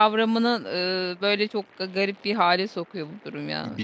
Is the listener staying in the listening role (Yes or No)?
No